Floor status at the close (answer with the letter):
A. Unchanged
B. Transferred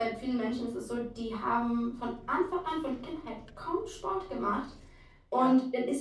A